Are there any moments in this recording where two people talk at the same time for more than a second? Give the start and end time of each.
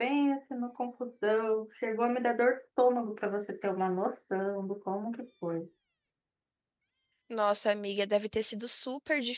none

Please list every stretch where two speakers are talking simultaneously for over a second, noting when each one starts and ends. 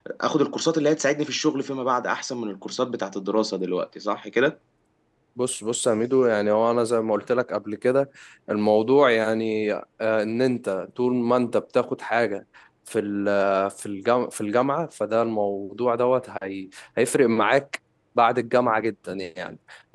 none

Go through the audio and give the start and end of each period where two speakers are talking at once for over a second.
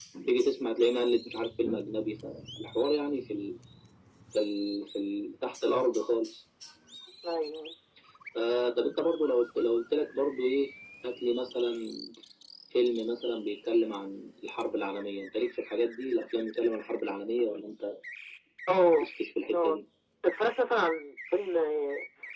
none

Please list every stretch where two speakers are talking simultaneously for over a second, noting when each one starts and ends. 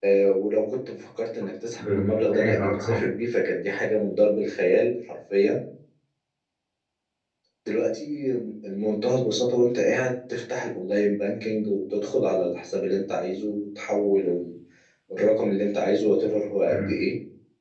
1.8-3.0

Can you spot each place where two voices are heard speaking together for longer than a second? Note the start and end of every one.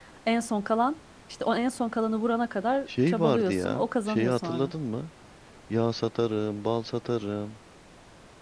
3.1-4.7

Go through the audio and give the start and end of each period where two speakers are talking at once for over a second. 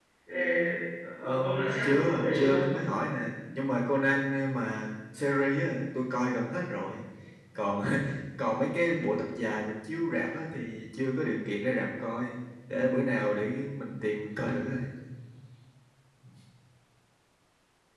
1.2-2.6

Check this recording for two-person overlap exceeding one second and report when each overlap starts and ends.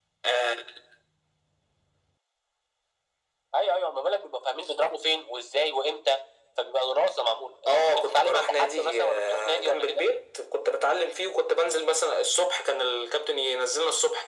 7.7-10.0

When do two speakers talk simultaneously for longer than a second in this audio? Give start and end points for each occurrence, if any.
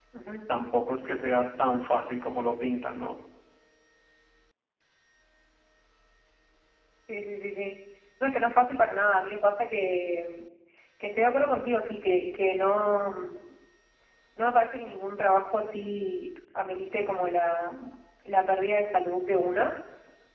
none

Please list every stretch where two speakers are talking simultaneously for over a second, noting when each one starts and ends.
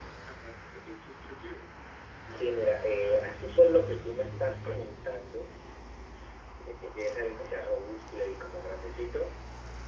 2.3-5.0

